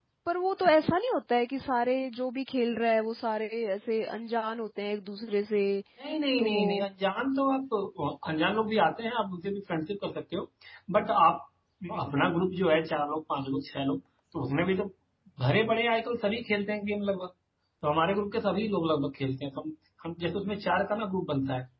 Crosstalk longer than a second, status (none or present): none